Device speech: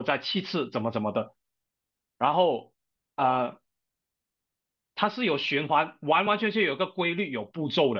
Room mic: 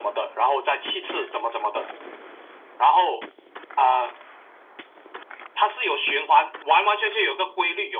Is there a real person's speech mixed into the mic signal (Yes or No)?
No